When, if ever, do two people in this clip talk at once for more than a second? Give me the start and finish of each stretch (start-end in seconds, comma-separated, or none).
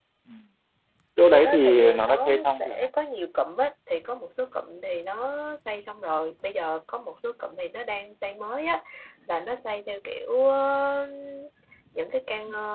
1.3-2.9